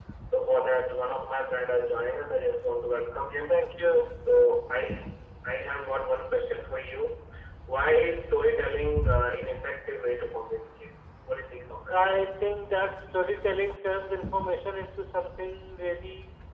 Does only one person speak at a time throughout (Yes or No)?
Yes